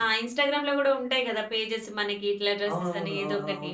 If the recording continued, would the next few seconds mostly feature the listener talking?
Yes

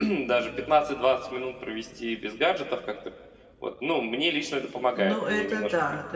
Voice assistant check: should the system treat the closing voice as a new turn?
Yes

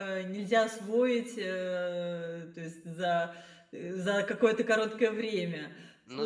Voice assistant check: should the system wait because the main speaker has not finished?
Yes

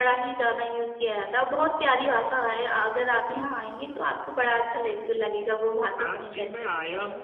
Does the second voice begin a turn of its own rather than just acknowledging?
Yes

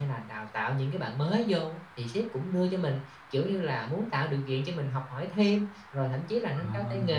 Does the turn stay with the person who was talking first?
Yes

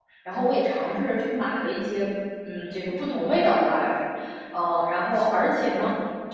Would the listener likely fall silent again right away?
Yes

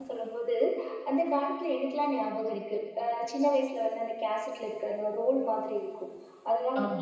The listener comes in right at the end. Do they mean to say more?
No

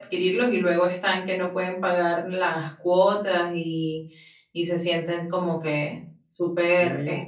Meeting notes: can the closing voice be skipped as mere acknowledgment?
No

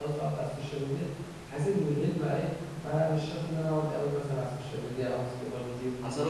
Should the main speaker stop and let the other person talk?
Yes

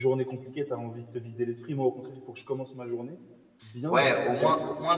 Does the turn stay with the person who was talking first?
No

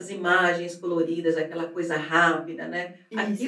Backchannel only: Yes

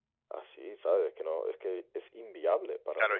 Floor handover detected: Yes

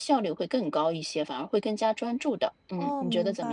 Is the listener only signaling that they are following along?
No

